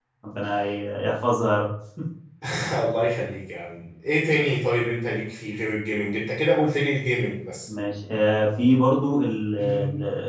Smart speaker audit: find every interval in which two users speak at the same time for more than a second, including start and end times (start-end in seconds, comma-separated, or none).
none